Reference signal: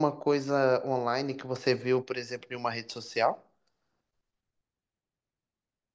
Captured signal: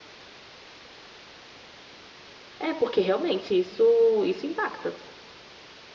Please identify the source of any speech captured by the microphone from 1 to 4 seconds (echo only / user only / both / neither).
user only